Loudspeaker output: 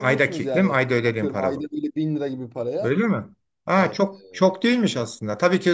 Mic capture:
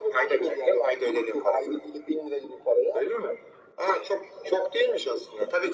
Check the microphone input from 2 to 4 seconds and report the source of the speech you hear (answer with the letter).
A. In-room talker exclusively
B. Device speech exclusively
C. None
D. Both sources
B